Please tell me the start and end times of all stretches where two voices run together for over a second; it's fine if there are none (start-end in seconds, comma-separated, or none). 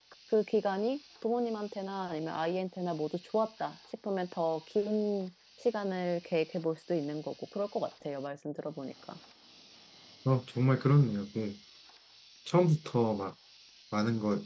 none